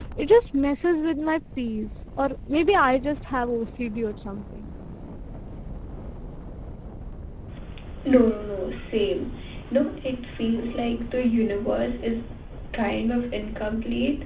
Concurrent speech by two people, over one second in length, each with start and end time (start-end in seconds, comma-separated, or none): none